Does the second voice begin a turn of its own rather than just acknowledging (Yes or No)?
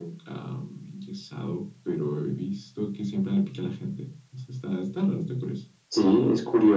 Yes